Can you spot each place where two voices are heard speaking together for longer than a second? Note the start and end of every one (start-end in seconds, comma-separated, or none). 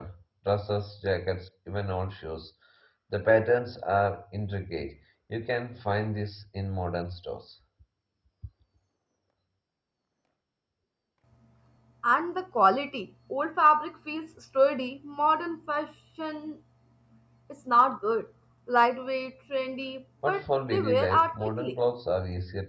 20.3-21.8